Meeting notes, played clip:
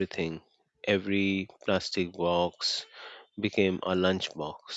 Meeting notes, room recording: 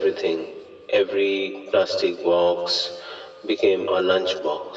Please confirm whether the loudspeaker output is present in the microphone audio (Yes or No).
Yes